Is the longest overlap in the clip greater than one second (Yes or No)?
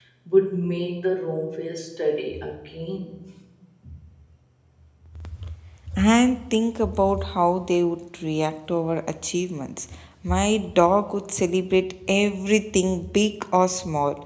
No